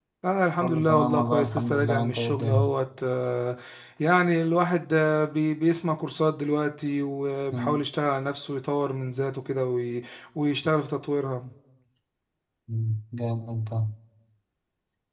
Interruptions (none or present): present